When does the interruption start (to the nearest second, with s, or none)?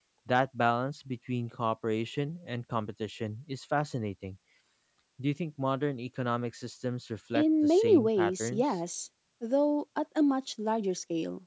7 s